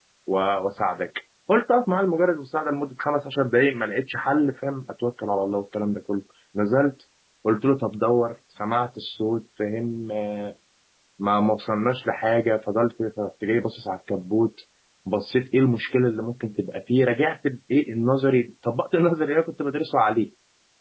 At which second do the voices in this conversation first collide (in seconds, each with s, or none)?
none